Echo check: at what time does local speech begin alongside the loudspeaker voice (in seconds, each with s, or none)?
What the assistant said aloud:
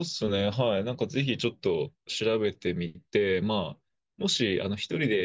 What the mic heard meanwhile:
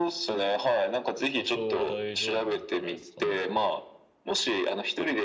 1.3 s